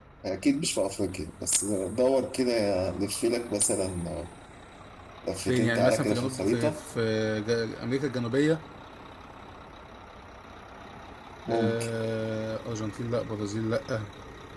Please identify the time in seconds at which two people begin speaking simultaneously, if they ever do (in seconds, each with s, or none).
5.4 s